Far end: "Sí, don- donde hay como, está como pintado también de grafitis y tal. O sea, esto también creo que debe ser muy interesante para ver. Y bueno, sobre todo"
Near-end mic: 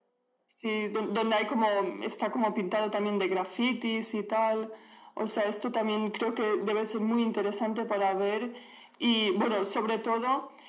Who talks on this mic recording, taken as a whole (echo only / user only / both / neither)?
echo only